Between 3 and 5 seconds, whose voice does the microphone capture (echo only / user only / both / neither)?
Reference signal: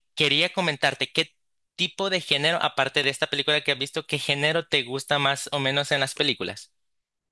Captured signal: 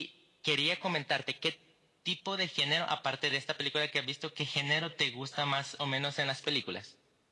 echo only